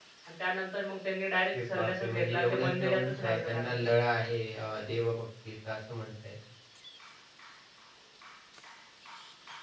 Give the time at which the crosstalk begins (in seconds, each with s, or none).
1.5 s